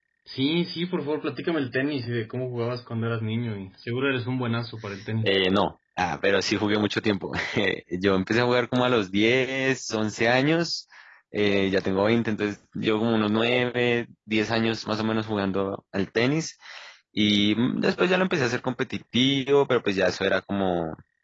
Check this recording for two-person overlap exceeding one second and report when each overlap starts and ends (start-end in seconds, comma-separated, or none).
none